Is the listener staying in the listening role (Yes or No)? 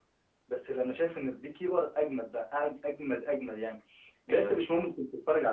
Yes